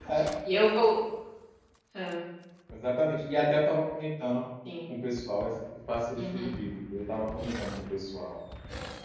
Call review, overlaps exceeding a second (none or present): none